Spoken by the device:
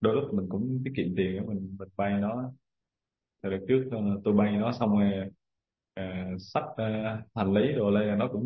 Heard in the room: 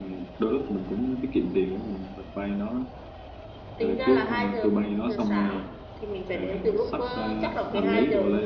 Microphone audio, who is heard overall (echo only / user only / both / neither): both